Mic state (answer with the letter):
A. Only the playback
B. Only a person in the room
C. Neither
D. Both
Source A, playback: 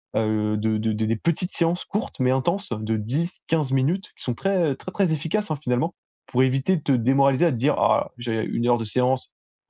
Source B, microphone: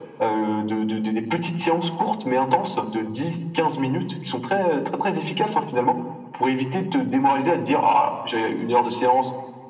A